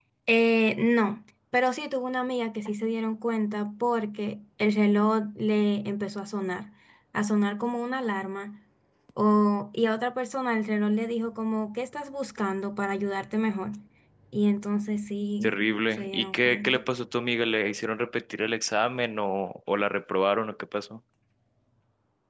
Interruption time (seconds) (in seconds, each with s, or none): 15.4 s